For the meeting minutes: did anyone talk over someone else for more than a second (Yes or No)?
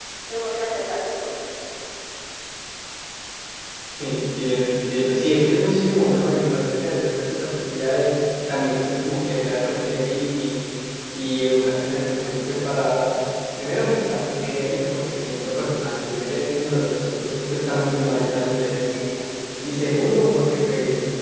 No